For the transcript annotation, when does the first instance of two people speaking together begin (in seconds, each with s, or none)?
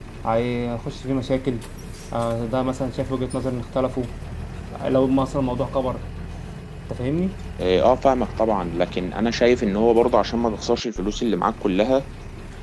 none